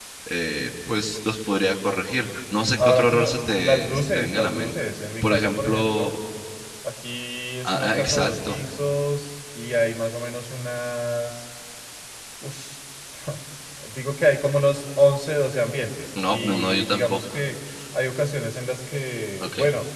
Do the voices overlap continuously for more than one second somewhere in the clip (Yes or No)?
Yes